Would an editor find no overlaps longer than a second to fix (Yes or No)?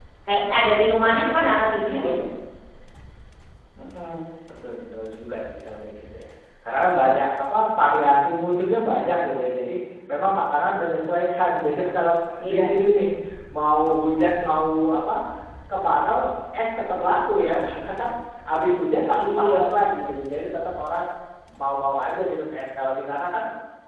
Yes